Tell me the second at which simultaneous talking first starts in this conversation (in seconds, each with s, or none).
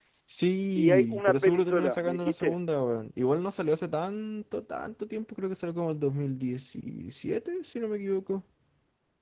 0.8 s